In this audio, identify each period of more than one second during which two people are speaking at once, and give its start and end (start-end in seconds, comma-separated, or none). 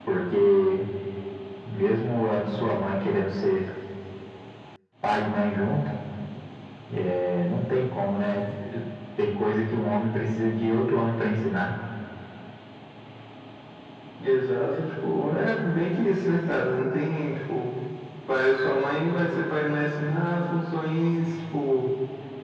none